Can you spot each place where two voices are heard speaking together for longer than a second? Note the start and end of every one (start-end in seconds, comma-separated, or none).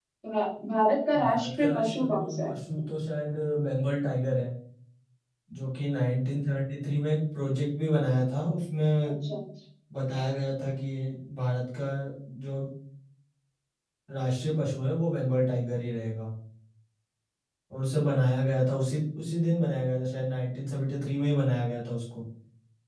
1.2-2.5